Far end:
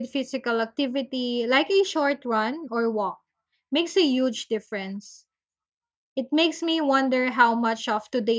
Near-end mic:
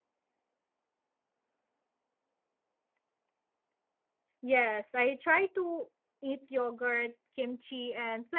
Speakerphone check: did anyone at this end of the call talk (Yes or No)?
Yes